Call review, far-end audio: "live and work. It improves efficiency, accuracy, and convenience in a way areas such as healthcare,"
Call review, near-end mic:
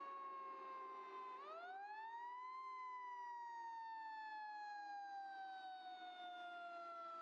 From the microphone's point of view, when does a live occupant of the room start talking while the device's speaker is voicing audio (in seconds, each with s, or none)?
none